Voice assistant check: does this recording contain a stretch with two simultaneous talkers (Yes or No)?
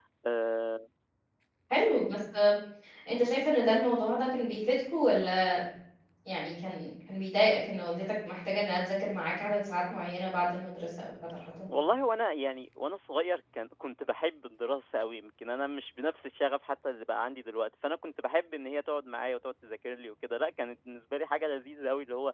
No